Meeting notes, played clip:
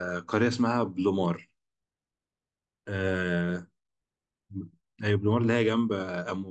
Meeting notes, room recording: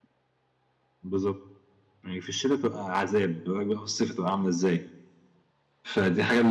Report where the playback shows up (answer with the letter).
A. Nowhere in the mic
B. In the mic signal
A